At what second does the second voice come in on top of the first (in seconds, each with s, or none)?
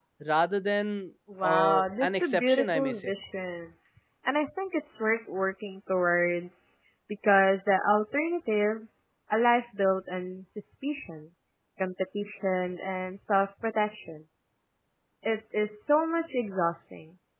1.3 s